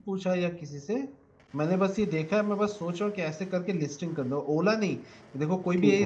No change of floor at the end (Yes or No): Yes